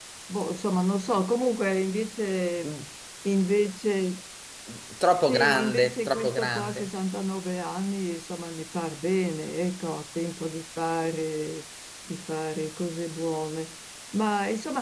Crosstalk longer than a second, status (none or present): present